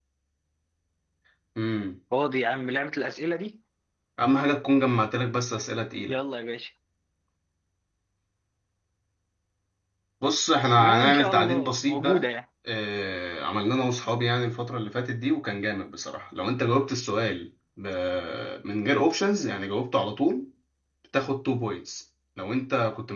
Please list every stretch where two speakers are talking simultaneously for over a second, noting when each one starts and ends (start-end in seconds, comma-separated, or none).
10.8-12.3